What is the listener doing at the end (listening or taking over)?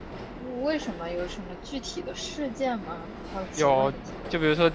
taking over